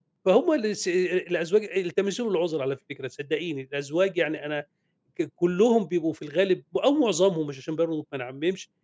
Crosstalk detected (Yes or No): No